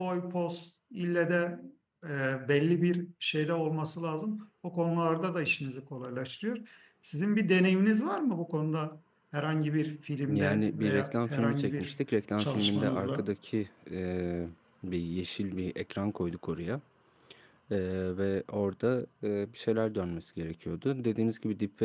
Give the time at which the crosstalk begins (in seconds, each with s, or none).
10.2 s